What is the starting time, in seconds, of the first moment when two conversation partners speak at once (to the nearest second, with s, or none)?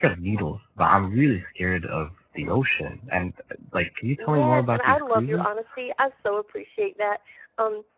4 s